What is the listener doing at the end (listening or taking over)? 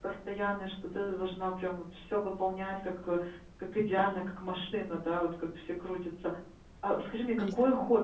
listening